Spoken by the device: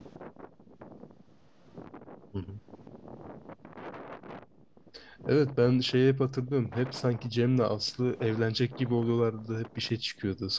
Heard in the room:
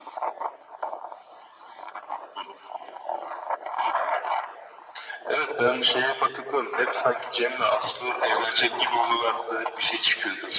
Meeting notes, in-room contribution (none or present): none